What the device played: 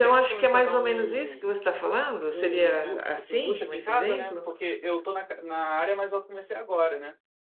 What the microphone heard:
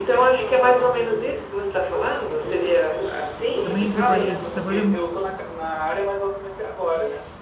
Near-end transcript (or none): também trabalhei, trabalha,